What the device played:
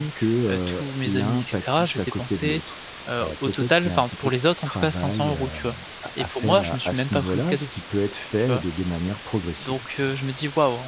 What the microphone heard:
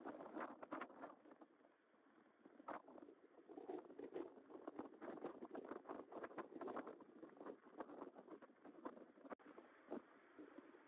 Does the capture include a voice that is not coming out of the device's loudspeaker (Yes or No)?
No